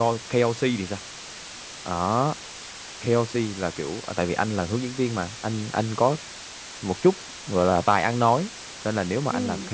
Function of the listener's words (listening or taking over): listening